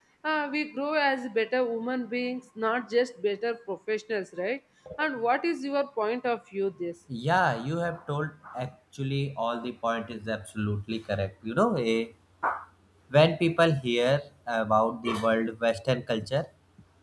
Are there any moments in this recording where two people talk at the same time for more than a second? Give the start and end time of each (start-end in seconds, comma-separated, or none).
none